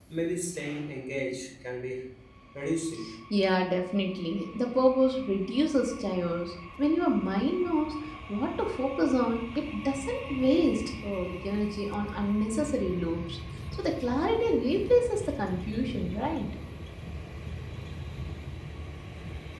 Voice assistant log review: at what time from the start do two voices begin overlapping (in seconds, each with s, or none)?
none